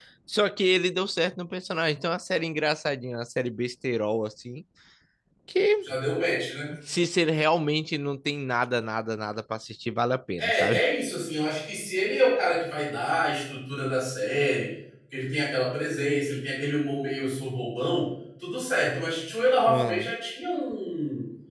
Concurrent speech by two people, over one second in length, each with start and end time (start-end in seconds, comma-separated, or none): none